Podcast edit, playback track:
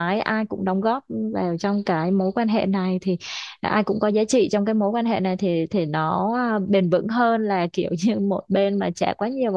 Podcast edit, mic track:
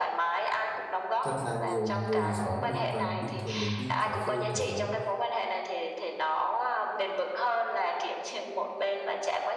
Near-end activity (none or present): present